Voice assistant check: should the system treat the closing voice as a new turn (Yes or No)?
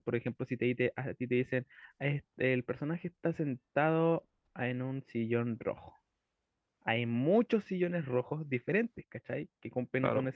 No